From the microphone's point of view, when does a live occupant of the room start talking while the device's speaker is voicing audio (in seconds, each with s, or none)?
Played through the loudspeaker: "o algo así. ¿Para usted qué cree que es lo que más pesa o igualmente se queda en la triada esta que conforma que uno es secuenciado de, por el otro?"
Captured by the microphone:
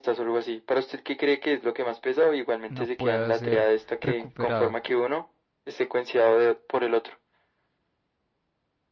2.7 s